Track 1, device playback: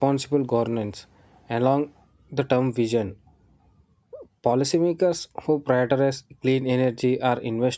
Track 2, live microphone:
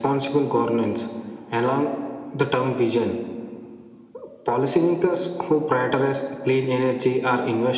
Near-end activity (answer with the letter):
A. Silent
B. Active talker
A